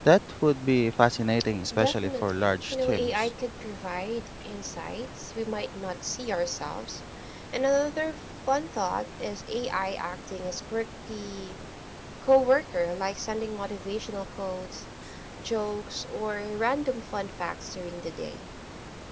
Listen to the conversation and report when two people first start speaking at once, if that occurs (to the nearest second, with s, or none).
2 s